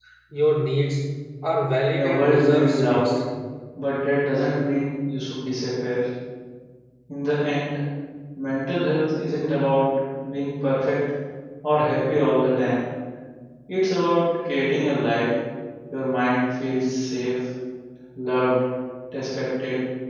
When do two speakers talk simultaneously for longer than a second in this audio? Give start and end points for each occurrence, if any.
1.9-3.2

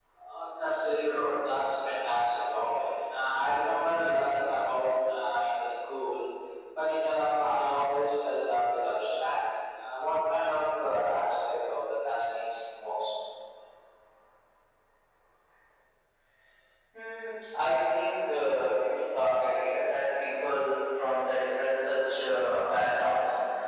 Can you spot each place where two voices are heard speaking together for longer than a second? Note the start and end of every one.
none

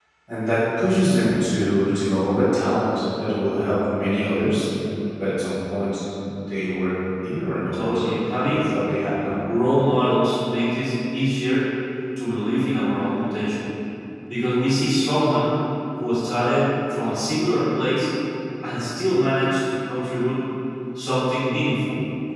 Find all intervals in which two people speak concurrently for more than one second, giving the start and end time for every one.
none

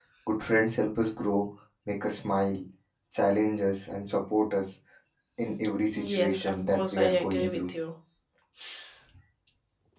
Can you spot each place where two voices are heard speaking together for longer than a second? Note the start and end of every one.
6.1-7.7

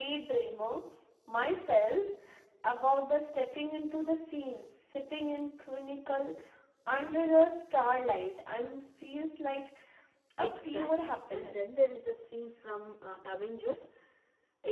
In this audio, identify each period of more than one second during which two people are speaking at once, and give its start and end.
10.4-11.7

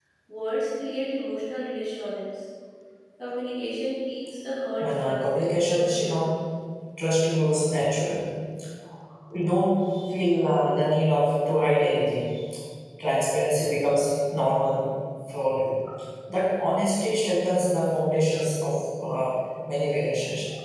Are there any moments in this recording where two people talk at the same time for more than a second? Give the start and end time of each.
4.8-6.2

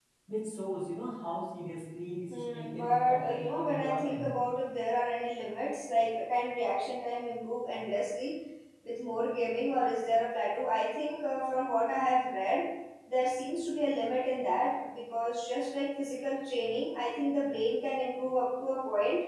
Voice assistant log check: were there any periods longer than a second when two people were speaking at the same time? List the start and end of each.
2.3-4.3

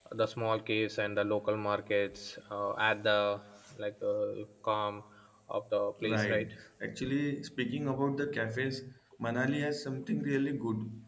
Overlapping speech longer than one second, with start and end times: none

